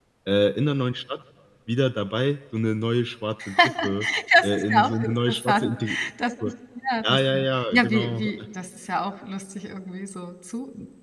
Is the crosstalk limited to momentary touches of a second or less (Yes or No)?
No